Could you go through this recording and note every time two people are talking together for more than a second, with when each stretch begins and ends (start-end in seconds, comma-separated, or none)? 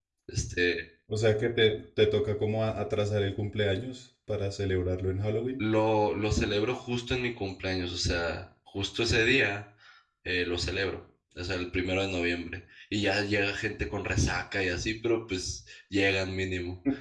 none